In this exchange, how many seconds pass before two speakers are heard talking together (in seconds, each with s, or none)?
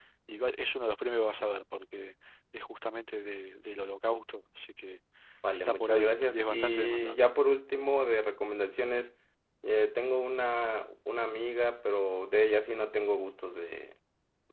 5.5 s